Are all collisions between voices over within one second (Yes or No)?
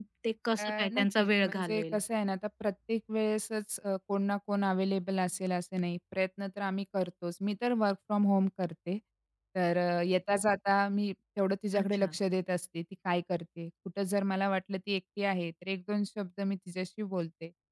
No